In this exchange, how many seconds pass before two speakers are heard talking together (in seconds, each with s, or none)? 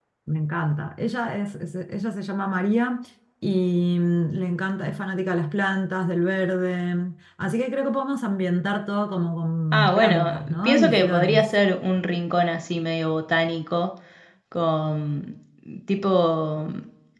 9.7 s